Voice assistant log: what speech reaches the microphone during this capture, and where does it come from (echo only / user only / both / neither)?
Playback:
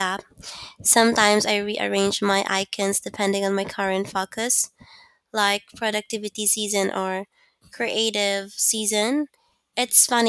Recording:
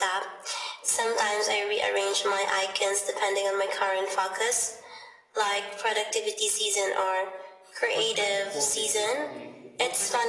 both